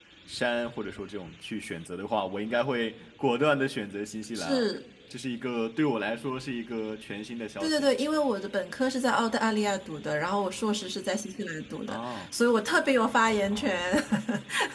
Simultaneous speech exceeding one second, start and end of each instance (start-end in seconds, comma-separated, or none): none